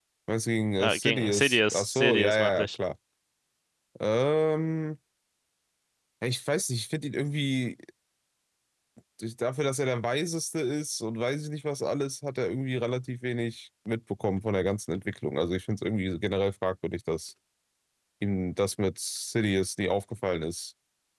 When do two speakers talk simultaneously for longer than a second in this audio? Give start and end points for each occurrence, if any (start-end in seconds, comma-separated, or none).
0.8-2.8